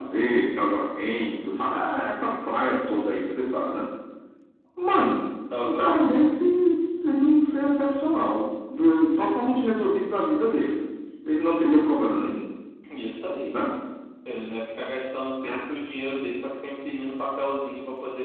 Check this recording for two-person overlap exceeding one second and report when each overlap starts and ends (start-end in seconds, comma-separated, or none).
none